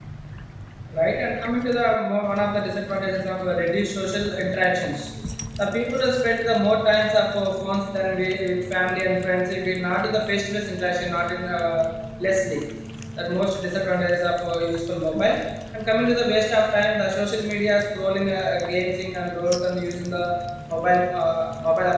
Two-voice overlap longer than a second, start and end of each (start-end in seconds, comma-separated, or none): none